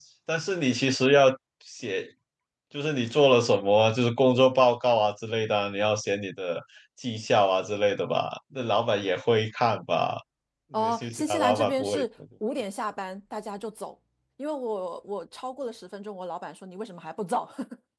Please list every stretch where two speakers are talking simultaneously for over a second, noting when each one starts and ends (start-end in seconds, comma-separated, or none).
10.7-12.0